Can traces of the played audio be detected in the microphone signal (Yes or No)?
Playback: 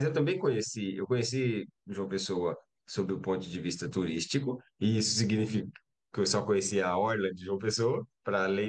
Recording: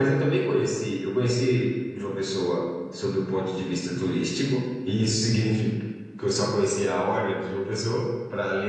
Yes